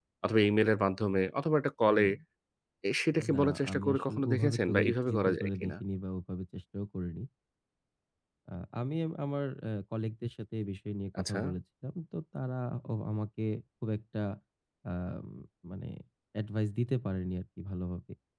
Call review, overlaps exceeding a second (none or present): present